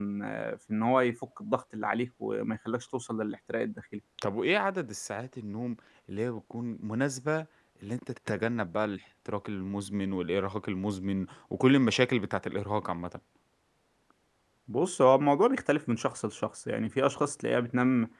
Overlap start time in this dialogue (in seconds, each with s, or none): none